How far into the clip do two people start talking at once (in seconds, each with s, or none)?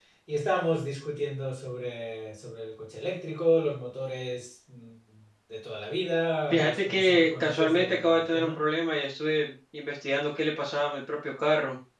6.5 s